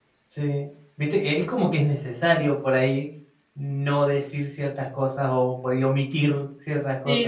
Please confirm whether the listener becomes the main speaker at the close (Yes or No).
Yes